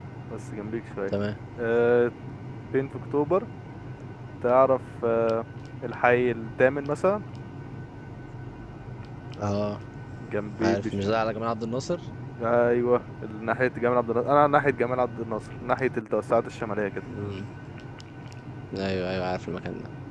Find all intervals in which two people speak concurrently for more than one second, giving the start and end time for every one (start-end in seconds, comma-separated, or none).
none